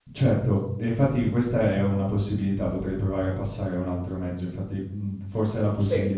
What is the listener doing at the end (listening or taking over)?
listening